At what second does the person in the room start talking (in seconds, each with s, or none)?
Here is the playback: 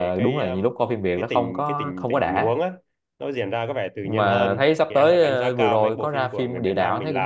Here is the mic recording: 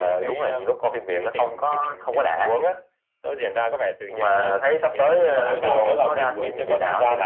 5.3 s